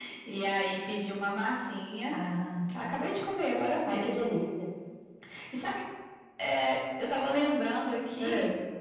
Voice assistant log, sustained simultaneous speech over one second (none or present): none